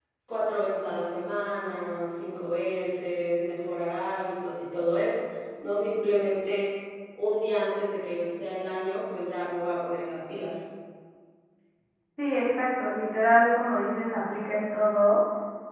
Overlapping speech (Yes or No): No